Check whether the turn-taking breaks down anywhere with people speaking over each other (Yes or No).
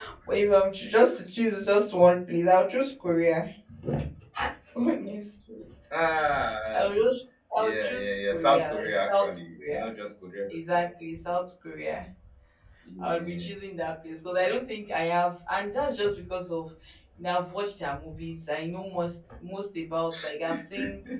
Yes